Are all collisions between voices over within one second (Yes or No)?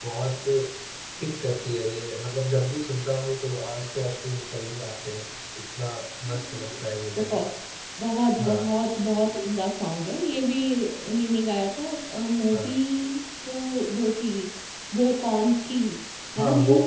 Yes